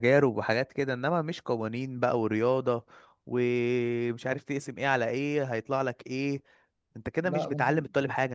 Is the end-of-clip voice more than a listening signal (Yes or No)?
No